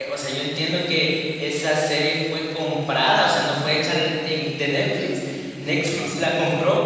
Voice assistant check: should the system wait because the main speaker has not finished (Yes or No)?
Yes